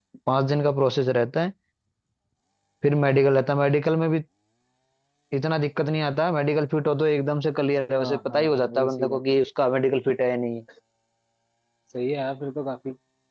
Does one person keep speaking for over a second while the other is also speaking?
Yes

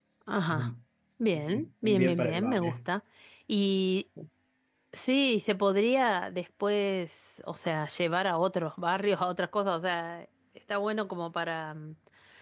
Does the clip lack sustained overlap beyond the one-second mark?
No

